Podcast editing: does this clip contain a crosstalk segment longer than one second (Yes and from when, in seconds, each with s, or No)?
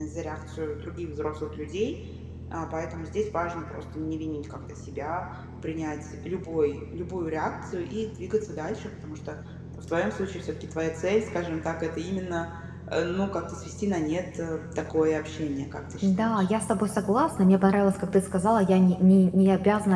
No